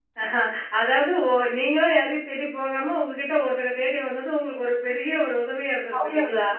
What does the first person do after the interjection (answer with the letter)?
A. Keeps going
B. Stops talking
B